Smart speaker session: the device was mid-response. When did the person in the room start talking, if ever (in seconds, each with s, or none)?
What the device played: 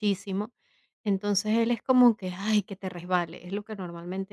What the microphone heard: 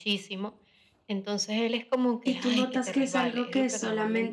2.2 s